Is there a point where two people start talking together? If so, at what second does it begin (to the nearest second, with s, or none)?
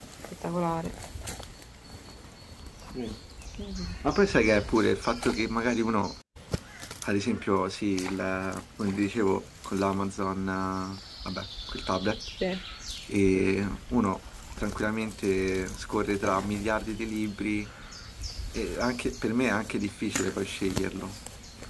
none